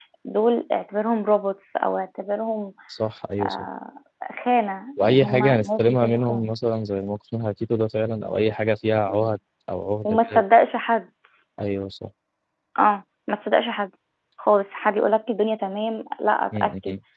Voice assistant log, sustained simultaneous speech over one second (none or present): present